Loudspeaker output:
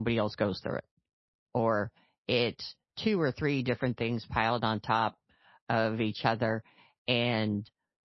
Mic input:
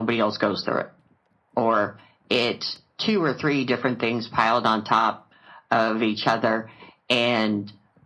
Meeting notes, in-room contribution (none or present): none